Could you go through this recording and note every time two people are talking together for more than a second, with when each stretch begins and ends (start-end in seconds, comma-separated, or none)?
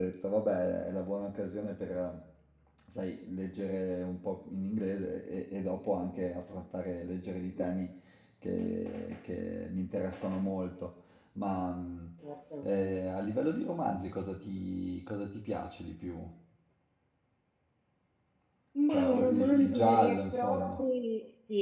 18.9-20.8